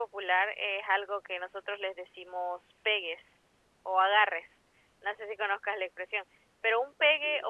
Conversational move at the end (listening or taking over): listening